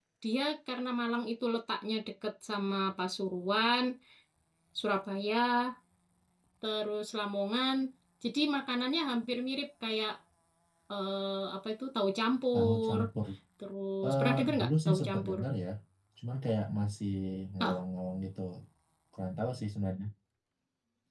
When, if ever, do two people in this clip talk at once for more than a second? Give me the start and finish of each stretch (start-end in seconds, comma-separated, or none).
14.0-15.4